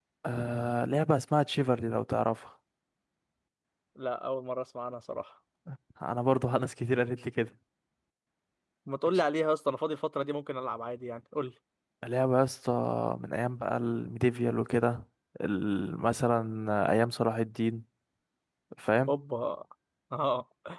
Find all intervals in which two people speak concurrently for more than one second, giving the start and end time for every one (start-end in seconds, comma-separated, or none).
none